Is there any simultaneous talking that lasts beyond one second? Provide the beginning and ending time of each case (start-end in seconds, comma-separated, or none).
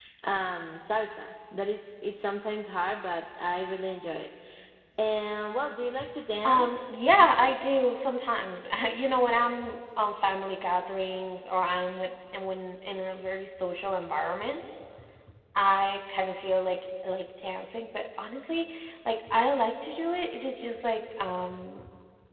none